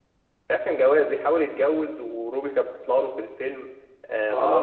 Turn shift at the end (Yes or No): Yes